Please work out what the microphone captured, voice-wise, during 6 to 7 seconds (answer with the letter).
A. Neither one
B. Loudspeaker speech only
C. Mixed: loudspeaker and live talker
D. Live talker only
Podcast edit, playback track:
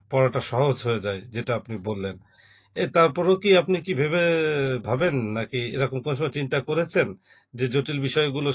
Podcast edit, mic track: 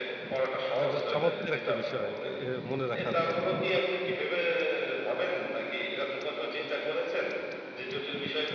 B